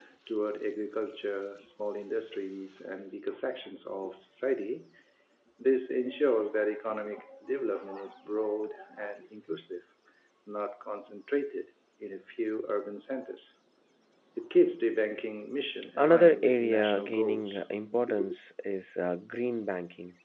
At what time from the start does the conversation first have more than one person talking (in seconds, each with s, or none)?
16.0 s